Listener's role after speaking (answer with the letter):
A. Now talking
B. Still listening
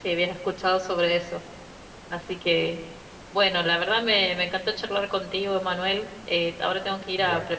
B